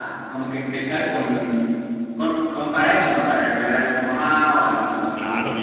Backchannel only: No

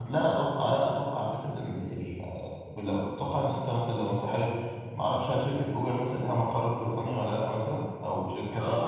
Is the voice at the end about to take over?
Yes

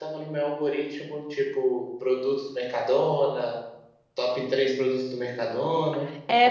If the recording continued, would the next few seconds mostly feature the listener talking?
Yes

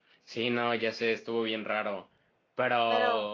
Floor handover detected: No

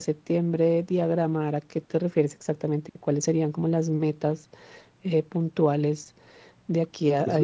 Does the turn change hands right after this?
Yes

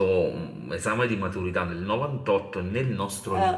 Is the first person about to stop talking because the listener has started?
No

